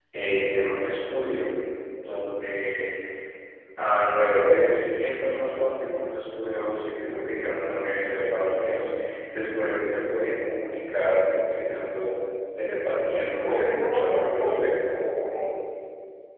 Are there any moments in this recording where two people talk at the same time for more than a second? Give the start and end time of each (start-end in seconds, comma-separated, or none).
13.4-14.9